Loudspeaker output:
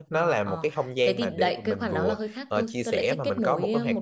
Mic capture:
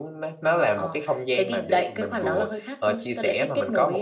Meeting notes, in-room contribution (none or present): none